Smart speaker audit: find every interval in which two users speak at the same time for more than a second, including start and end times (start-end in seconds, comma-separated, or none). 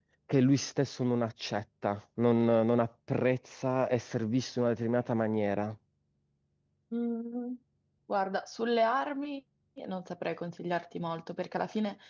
none